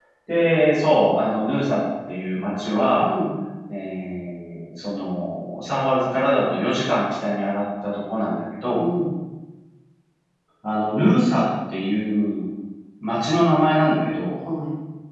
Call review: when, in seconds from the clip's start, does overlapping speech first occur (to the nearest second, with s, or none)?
none